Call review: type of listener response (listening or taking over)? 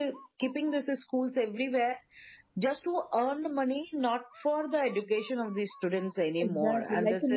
taking over